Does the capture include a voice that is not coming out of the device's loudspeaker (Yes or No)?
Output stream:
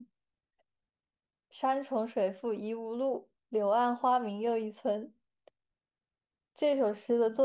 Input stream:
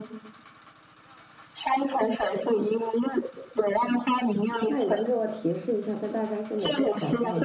Yes